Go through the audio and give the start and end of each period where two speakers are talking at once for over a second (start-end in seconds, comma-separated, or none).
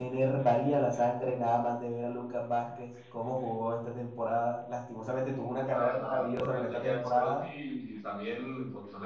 5.7-7.4